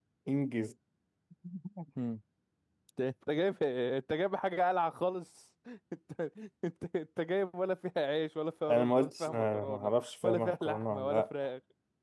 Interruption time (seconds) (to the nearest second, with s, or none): 9 s